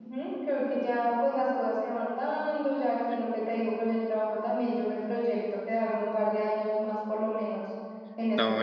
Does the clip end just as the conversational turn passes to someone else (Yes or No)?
Yes